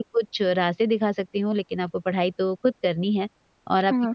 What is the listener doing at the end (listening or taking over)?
listening